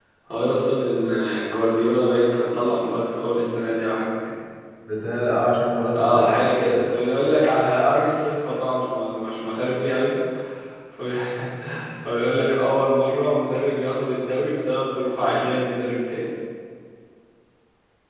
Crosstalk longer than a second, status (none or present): none